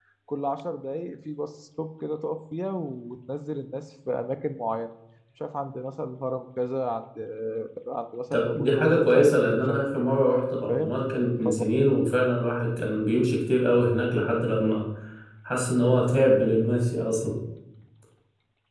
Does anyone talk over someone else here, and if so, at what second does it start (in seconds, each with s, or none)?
8.3 s